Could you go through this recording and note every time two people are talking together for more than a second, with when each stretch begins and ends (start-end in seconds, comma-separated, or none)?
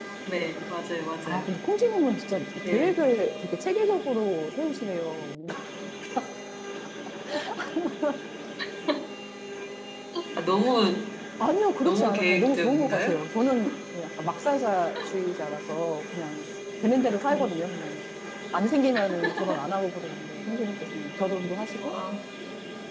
11.8-13.1